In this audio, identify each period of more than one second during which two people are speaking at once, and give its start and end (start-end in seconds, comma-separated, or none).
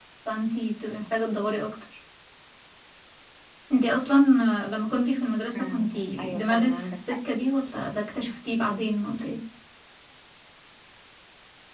5.5-7.0